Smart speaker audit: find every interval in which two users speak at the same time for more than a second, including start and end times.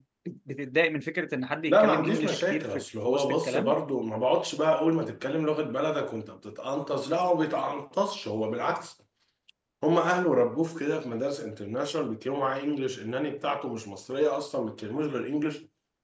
1.7-3.8

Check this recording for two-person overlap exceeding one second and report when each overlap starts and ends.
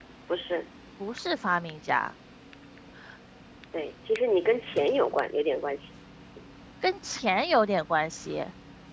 none

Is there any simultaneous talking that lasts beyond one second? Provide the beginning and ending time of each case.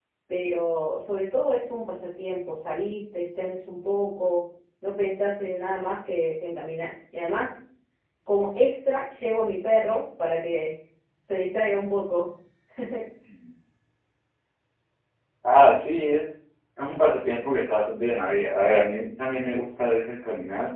none

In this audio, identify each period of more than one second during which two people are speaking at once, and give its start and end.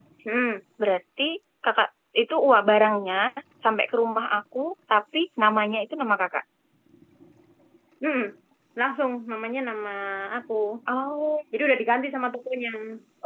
none

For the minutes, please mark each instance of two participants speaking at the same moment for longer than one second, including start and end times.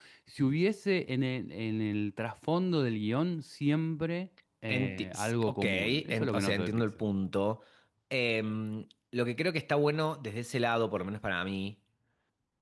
4.7-6.8

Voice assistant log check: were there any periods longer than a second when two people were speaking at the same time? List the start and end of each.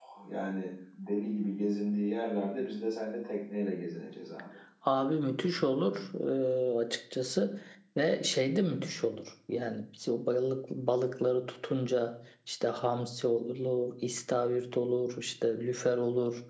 none

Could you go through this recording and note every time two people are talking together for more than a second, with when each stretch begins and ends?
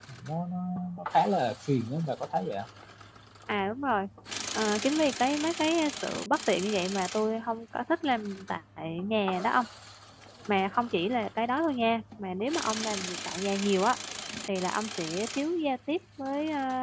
none

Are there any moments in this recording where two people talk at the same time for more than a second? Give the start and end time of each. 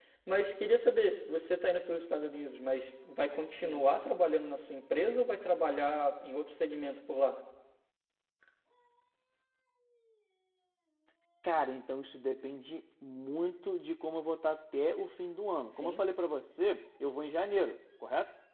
none

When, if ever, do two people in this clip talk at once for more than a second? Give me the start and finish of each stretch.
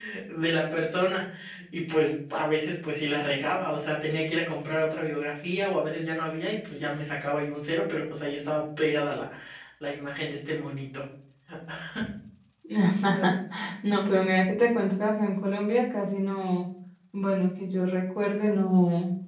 none

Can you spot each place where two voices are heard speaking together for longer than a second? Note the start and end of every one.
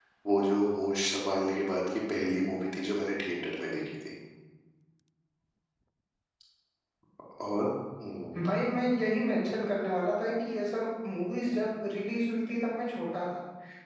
none

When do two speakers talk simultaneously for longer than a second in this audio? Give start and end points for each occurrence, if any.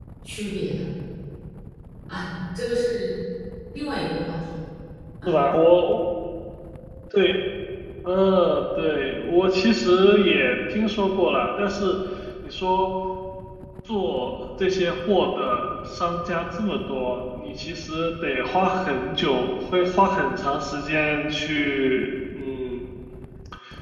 none

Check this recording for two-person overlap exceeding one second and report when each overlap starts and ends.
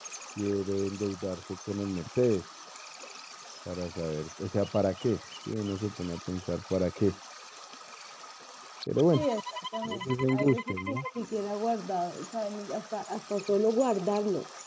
9.8-11.1

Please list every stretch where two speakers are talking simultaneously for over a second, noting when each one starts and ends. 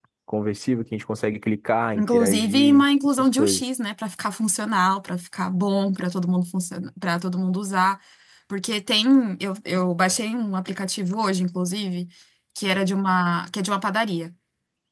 1.9-3.6

